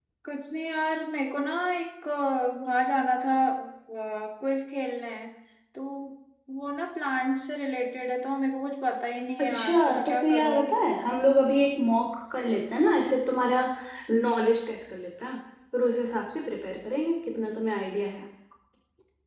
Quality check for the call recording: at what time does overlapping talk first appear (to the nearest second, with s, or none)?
9 s